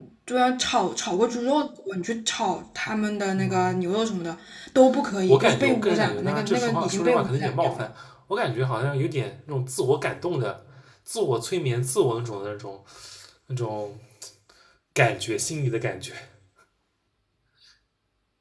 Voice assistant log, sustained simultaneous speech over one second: present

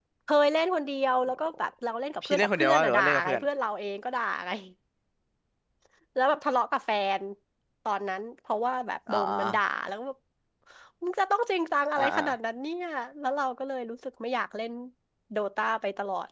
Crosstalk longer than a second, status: present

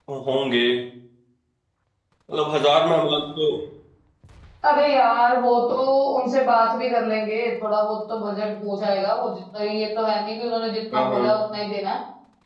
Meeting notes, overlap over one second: none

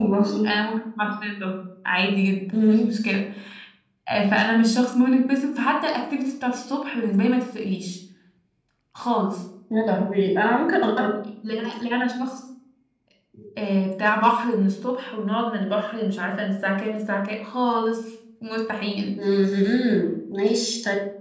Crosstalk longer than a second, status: none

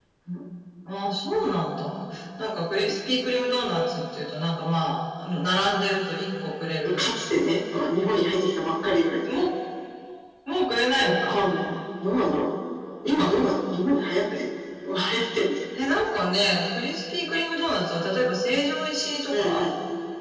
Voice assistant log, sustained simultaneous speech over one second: none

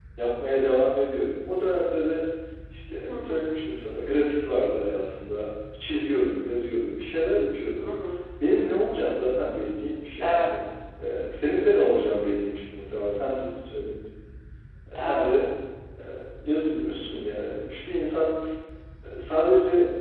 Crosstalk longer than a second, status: none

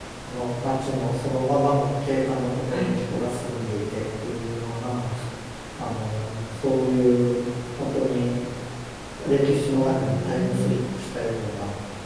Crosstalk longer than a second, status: present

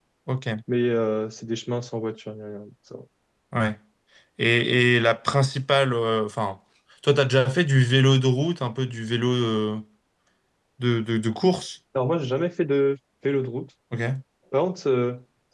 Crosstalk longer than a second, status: none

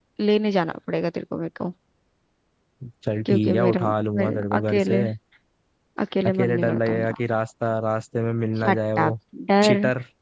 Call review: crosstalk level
present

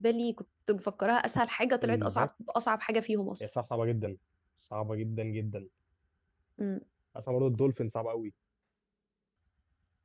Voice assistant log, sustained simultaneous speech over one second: none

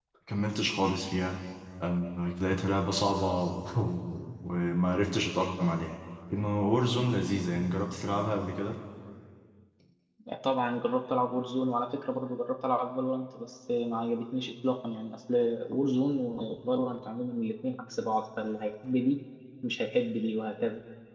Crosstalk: none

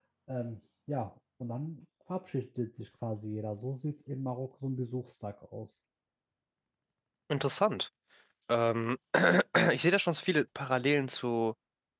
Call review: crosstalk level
none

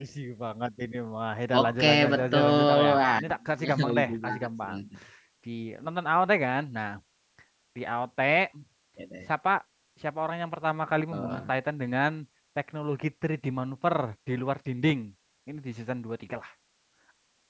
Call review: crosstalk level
present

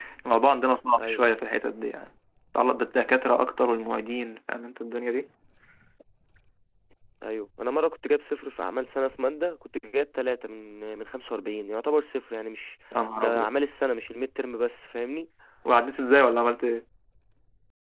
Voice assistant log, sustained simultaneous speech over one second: none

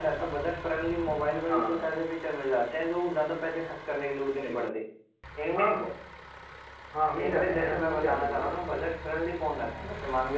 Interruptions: present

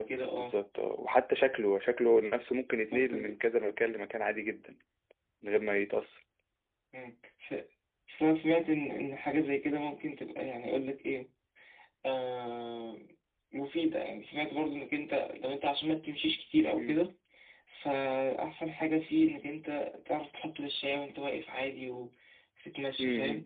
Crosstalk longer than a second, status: none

